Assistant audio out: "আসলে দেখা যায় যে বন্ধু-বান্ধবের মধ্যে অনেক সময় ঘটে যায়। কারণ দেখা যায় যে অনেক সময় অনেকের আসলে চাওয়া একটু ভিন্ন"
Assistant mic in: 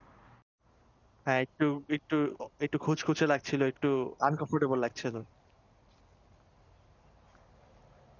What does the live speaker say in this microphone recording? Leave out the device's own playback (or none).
হ্যাঁ, একটু একটু অ একটু খুঁতখুঁতে লাগছিল, একটু আনকমফোর্টেবল লাগছিল।